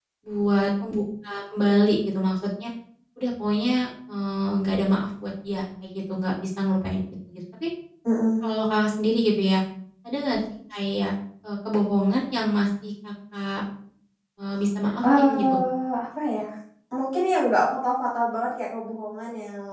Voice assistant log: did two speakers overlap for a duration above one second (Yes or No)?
No